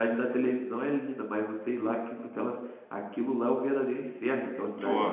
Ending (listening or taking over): taking over